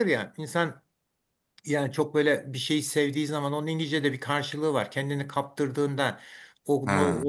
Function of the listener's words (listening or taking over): listening